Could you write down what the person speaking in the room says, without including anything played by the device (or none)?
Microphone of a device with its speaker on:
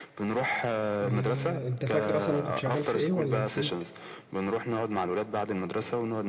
إيه. انت فاكر اصلا أنا كنت شغال في ايه ولا نسيت